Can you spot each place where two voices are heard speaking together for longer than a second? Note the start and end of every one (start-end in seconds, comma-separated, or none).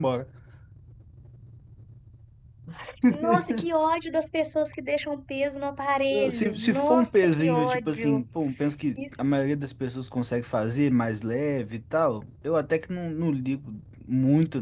6.3-8.2